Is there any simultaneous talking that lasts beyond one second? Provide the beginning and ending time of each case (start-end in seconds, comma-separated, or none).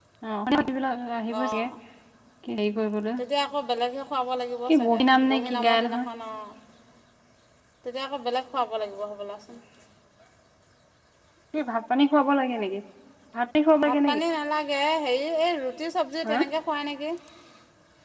4.7-6.0